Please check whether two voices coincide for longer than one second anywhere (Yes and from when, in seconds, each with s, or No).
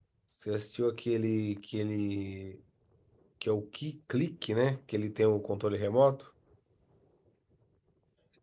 No